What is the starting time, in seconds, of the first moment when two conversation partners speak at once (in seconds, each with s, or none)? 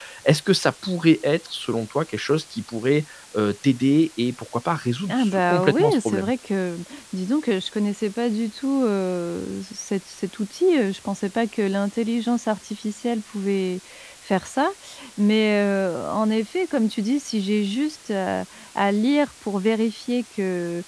5.1 s